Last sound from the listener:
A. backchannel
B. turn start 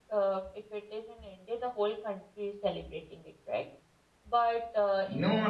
B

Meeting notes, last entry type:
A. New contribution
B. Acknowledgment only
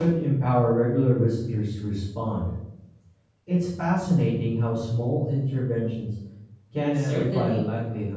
A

